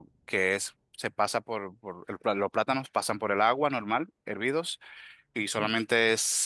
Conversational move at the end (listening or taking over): listening